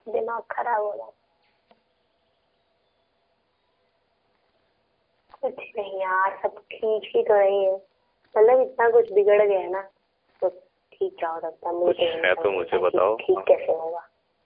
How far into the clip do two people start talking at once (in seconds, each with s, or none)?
11.8 s